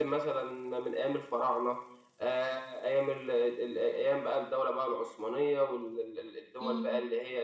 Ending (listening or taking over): listening